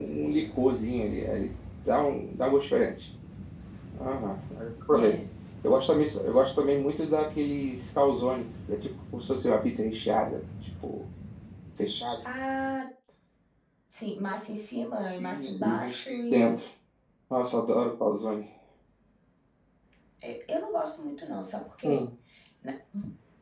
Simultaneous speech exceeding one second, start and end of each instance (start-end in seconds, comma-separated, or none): 15.2-16.6